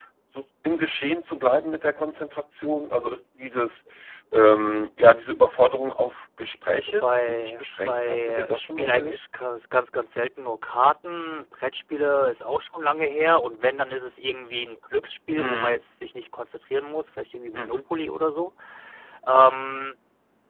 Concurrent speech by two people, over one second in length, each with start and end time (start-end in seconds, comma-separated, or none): 6.7-9.2